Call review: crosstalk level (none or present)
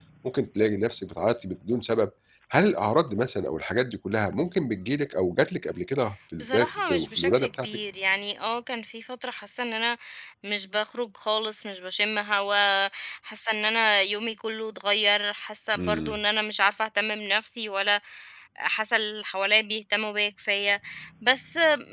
present